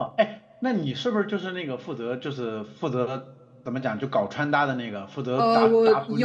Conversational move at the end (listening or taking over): taking over